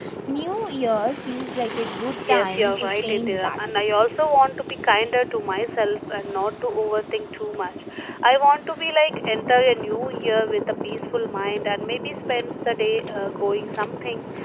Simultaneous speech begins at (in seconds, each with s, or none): 2.1 s